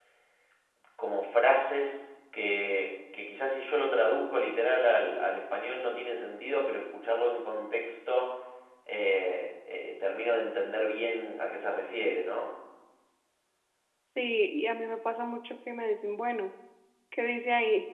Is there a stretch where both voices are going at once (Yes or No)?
No